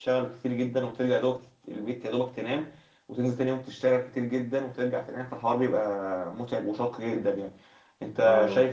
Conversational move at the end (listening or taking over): listening